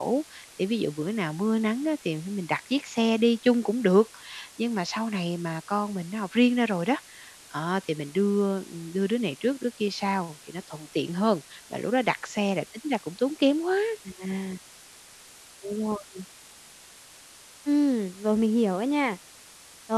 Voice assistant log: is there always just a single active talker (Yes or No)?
Yes